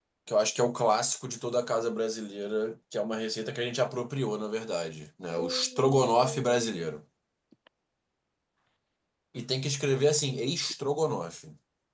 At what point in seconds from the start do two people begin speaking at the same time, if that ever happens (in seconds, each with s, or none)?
5.4 s